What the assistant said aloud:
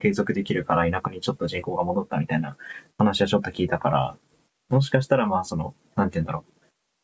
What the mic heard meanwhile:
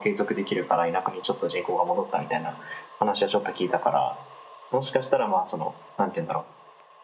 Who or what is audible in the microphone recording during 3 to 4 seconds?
echo only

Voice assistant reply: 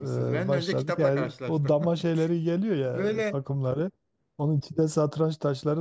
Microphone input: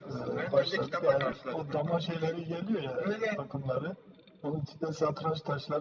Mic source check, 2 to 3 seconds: echo only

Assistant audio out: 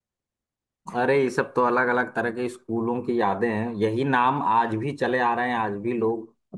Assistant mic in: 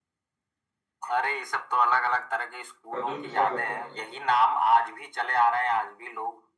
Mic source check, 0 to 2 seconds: echo only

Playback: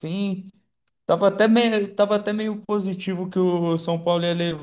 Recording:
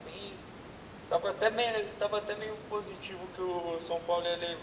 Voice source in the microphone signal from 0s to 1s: echo only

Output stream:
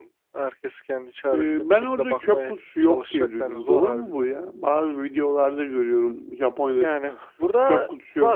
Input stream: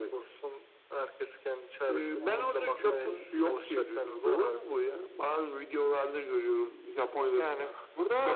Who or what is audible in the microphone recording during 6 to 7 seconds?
echo only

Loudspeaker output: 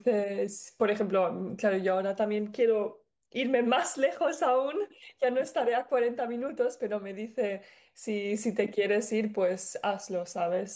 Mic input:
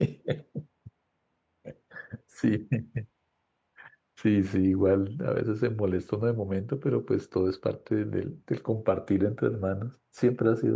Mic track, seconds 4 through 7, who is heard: user only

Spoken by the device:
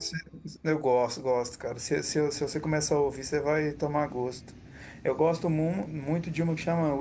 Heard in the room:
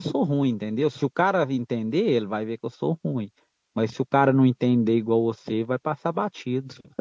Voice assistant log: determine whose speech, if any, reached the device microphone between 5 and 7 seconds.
user only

